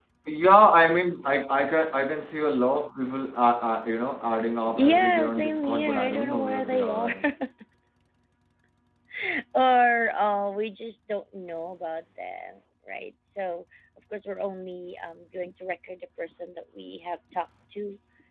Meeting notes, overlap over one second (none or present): present